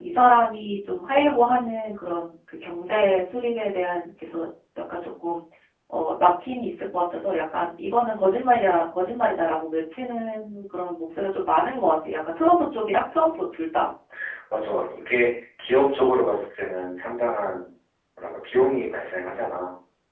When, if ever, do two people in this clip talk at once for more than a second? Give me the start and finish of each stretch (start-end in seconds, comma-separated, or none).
none